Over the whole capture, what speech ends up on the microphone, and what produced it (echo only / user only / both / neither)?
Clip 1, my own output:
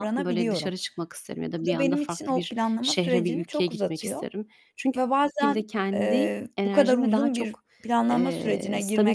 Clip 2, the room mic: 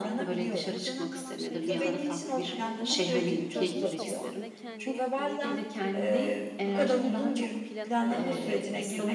both